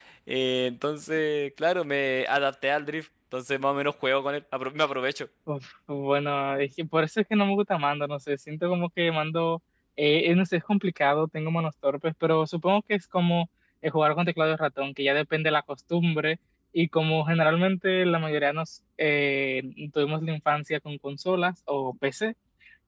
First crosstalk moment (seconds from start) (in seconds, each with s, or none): none